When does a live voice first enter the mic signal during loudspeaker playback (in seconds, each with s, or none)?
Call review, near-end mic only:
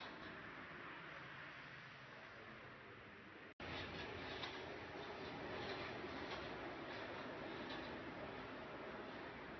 none